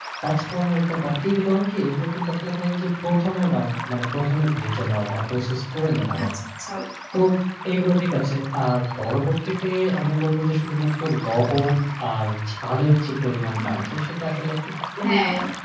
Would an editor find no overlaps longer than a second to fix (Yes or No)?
Yes